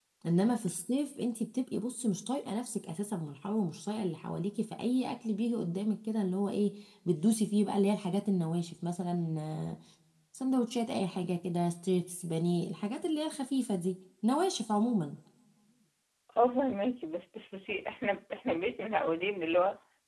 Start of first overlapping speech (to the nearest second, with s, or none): none